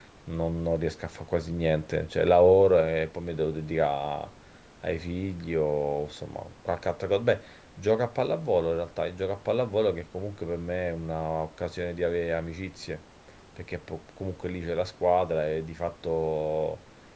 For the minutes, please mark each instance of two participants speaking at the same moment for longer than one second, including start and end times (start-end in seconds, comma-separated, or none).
none